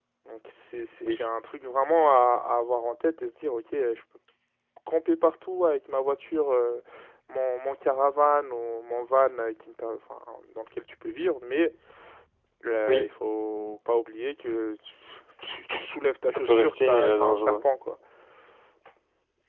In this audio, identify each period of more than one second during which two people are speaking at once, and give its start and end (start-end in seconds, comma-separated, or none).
16.3-17.6